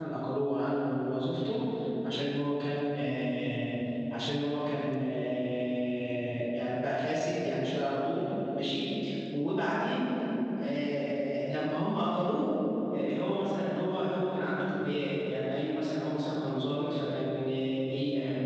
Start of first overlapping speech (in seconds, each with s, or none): none